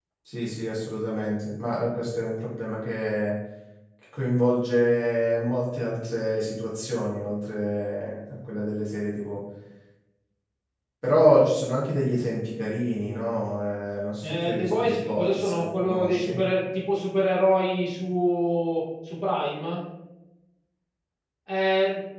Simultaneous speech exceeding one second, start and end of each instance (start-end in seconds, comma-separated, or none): 14.2-16.3